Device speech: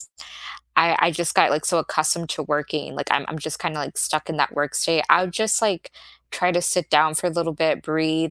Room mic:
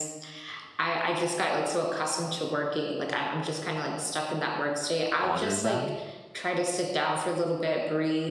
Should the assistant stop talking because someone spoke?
Yes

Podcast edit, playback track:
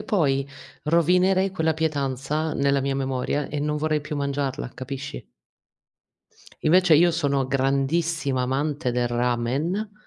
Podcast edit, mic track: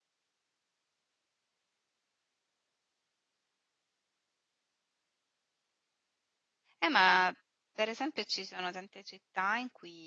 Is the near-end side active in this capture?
Yes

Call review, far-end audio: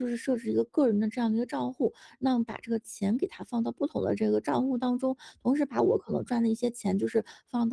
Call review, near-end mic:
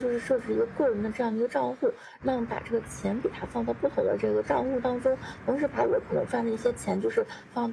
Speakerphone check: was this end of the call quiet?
Yes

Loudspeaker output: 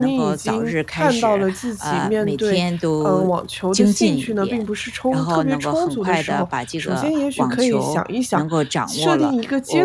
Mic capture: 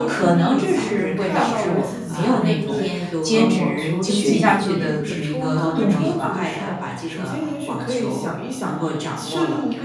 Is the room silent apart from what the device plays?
No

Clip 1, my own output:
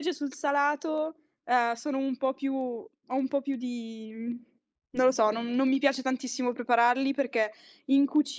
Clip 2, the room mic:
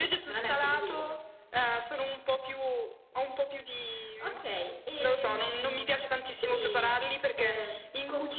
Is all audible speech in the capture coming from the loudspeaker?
No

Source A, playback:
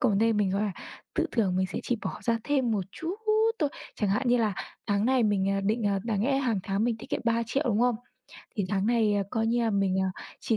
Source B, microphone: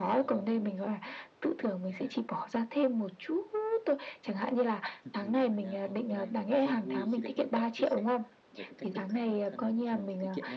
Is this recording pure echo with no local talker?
No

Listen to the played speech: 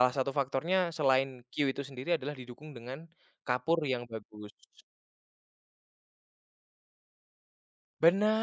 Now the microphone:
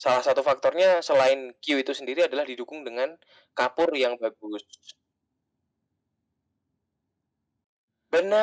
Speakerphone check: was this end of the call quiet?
Yes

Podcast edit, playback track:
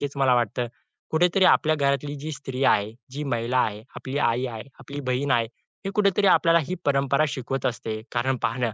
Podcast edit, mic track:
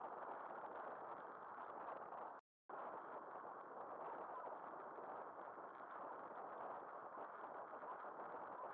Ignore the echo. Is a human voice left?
No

